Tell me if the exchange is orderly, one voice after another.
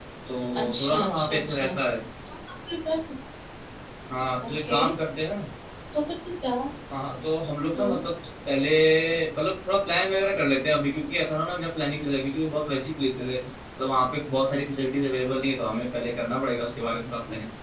No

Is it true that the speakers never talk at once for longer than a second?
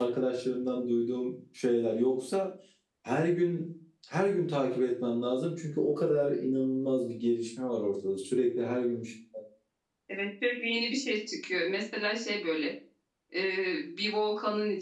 Yes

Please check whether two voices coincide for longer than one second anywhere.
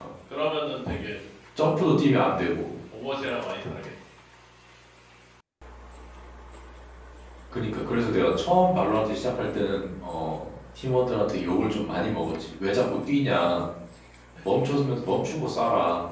No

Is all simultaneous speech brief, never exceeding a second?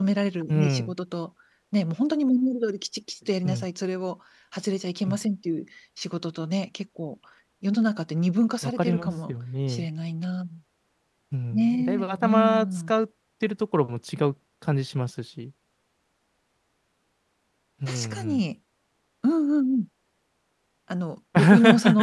No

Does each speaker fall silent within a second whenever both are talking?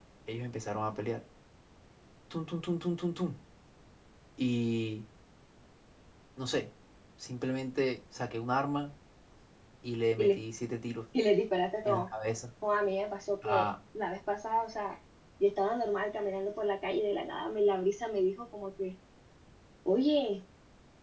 Yes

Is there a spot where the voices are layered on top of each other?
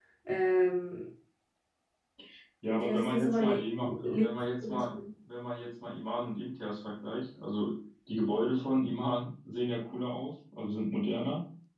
Yes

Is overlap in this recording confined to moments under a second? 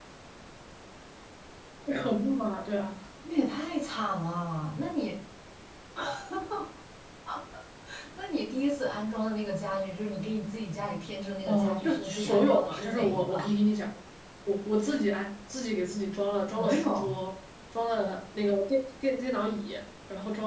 No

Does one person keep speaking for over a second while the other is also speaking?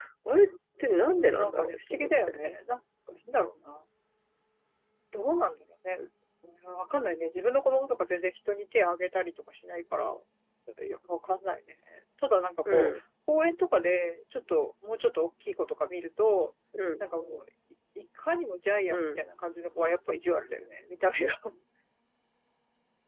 Yes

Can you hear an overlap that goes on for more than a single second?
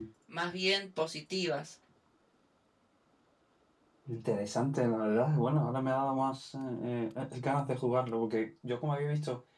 No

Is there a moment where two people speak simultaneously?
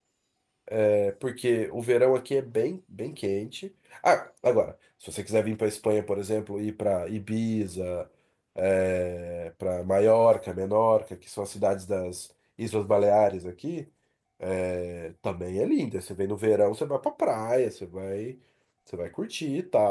No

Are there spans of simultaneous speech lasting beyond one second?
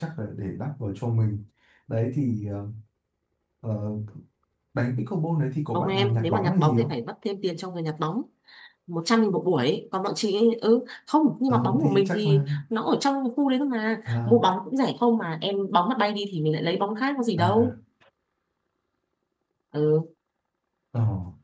Yes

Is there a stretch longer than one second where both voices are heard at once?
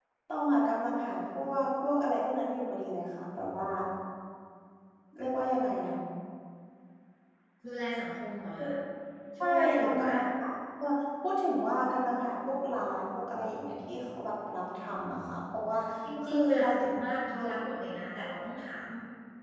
Yes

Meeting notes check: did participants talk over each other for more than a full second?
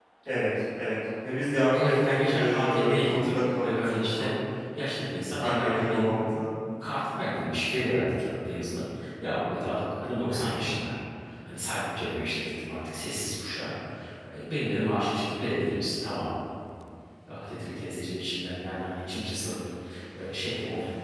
Yes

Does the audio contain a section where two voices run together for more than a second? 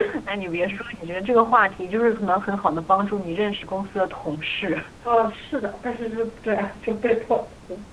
No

